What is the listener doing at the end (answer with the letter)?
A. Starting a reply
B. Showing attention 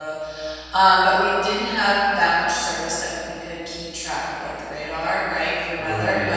B